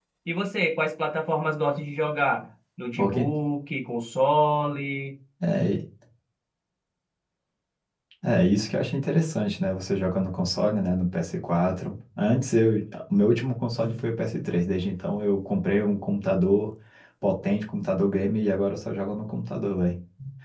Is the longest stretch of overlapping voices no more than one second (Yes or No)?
Yes